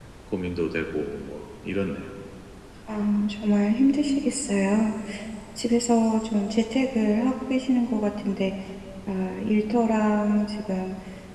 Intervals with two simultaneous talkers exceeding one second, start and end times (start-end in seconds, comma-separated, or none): none